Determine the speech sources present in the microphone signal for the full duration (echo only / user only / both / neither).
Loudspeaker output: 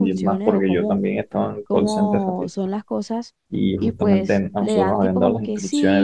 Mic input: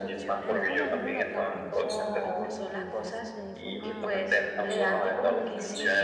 both